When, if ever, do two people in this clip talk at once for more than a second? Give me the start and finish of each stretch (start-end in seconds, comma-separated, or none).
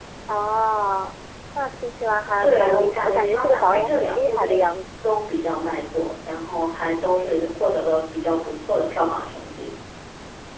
2.4-4.8